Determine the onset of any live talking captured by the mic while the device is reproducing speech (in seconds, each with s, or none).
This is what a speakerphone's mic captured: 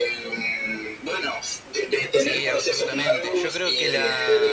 2.2 s